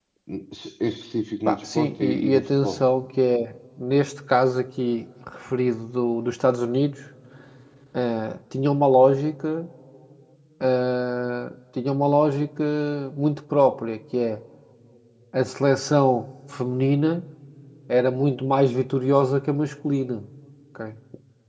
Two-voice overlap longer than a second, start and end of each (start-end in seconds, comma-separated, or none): 1.4-2.9